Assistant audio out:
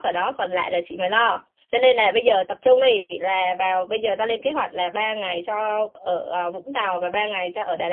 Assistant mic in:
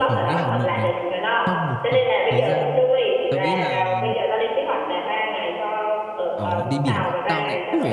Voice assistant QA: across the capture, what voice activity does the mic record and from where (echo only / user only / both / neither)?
both